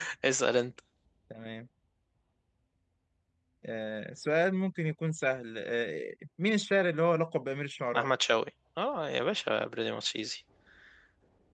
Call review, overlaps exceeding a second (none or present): none